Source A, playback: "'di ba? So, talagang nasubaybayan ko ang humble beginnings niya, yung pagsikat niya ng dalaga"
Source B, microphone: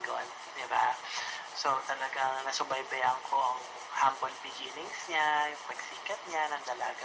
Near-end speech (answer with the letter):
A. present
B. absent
B